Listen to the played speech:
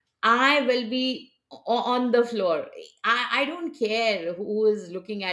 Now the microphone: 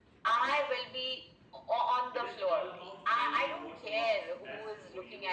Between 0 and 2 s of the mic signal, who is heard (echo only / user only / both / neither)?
echo only